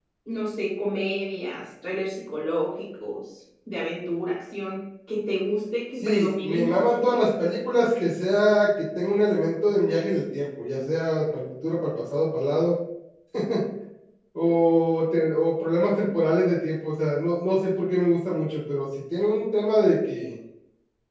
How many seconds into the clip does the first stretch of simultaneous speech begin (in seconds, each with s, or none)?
6.0 s